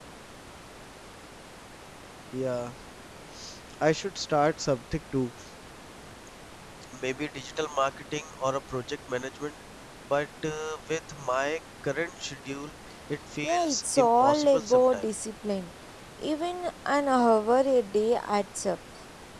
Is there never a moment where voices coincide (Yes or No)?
No